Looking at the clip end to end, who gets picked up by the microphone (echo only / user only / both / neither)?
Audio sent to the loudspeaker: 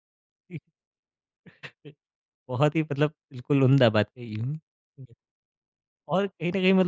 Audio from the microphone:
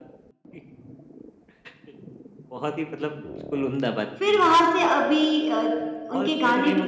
both